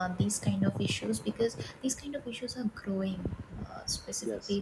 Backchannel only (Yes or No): Yes